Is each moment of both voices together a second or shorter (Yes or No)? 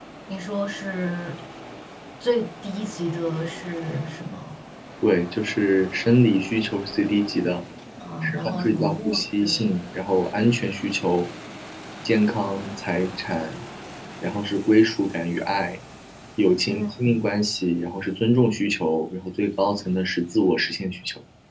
No